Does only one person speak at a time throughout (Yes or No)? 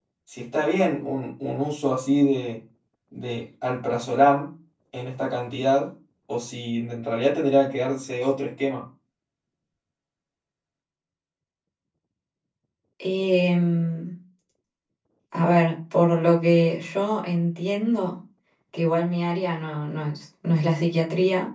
Yes